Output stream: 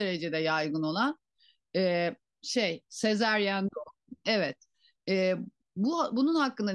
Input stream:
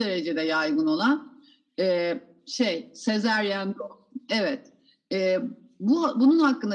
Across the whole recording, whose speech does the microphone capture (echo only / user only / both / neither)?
echo only